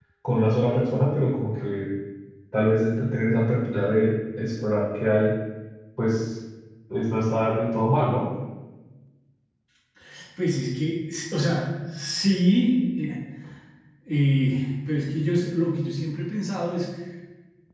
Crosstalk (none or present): none